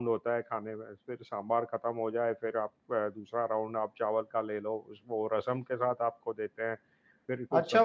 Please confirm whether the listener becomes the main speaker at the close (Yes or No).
Yes